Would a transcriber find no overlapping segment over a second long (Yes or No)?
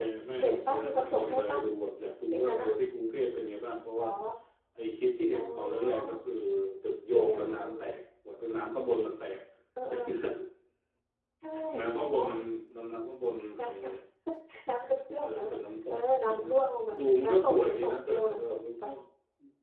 No